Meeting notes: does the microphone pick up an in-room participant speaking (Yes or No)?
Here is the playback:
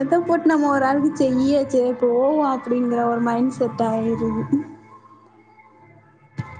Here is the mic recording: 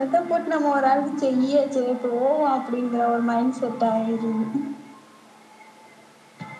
No